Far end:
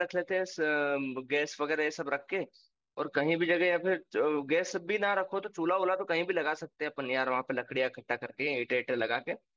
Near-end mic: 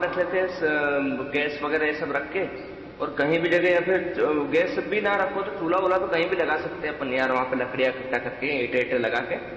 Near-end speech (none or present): none